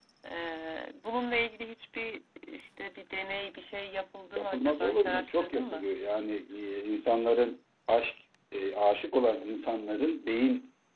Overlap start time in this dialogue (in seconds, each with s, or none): 4.4 s